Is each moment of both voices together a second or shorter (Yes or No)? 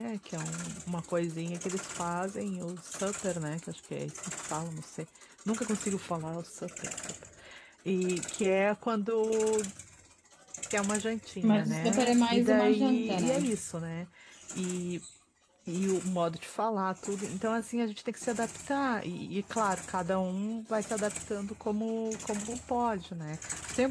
No